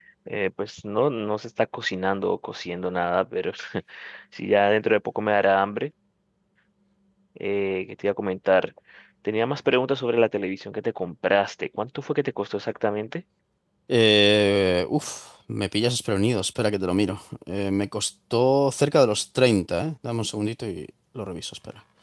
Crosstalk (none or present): none